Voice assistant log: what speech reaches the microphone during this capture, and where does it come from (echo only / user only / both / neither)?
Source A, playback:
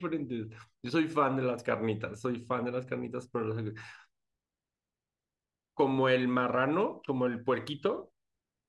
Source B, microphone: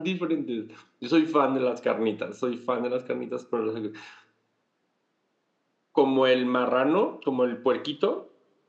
echo only